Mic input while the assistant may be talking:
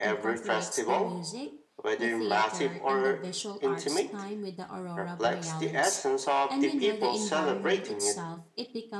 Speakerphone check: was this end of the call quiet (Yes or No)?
No